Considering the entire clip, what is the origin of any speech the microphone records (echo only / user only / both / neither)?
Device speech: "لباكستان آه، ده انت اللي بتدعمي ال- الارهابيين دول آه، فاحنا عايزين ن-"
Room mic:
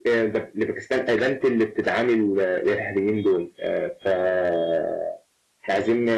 echo only